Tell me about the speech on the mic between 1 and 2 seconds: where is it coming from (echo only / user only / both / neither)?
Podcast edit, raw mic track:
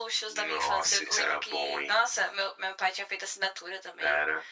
echo only